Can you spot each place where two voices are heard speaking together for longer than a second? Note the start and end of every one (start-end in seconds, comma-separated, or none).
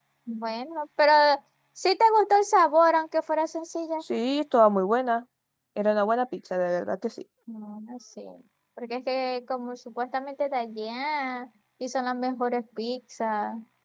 none